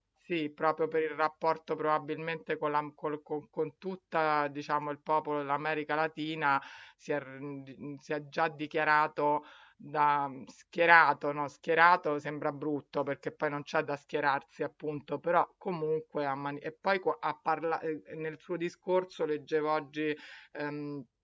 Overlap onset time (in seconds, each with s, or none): none